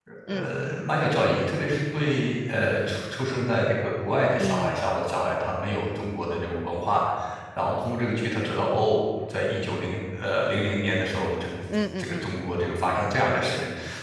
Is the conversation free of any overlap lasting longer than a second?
Yes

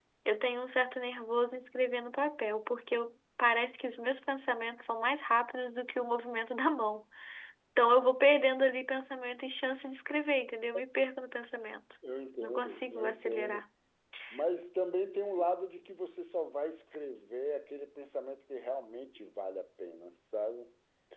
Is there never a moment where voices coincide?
No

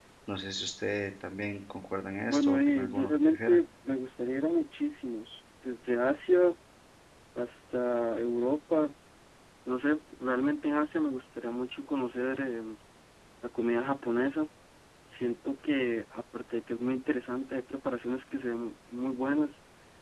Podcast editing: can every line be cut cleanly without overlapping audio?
No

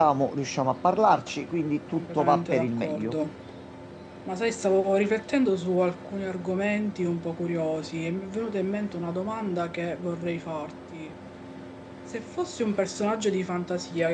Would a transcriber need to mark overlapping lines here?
Yes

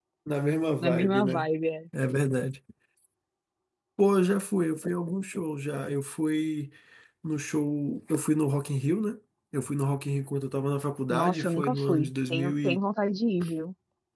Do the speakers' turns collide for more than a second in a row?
Yes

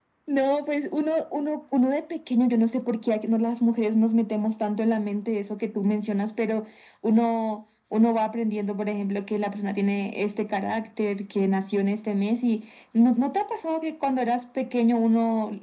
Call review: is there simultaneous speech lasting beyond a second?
No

